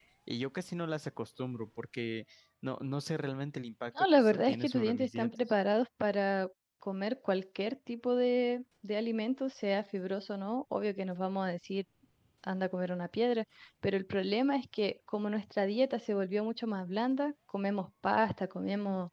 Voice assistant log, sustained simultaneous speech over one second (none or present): present